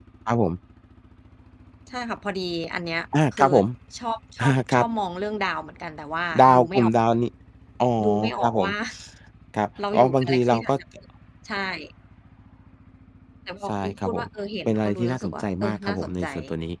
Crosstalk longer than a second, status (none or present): present